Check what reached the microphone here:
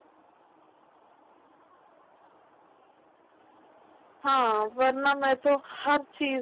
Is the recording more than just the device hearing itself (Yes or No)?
Yes